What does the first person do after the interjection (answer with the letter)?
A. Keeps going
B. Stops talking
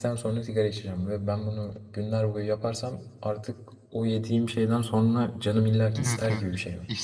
B